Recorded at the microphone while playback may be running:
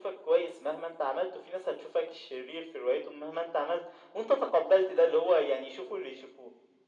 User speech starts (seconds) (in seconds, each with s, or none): none